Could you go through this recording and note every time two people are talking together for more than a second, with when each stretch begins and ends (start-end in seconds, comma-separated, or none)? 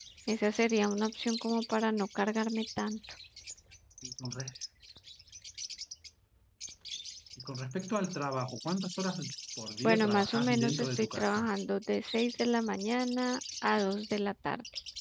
9.8-11.5